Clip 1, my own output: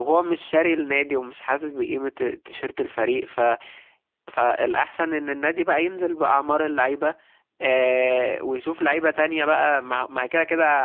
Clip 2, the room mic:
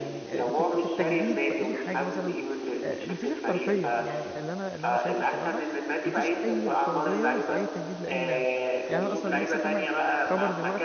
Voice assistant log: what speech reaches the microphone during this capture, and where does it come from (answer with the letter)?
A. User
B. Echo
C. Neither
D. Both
D